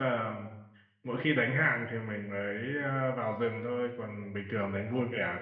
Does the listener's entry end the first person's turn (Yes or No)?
No